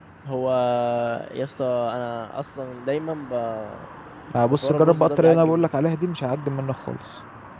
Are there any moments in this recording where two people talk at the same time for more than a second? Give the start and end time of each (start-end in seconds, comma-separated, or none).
4.5-5.7